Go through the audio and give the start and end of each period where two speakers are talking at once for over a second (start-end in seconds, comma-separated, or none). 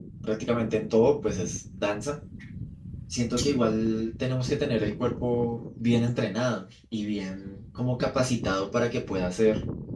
none